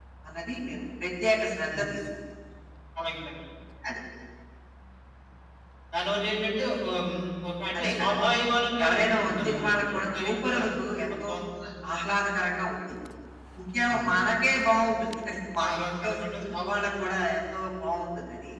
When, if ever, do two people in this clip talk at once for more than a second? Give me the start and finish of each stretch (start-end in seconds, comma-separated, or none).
8.8-10.6